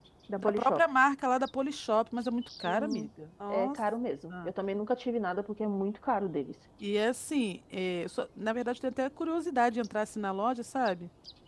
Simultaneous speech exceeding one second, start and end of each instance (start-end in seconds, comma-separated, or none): none